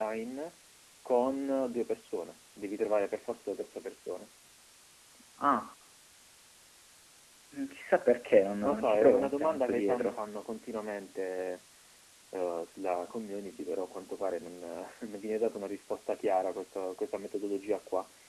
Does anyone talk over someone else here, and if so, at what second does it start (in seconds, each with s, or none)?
8.6 s